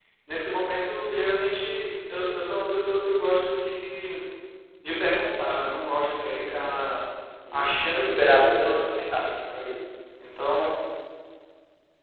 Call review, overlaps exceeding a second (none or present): present